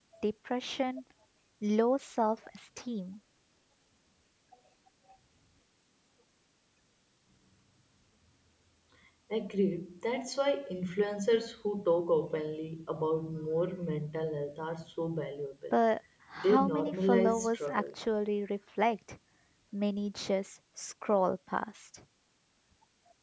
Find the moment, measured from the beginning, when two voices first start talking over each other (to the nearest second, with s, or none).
16 s